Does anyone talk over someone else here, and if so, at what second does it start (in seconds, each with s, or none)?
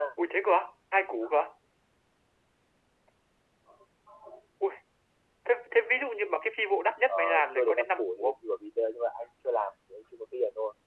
7.1 s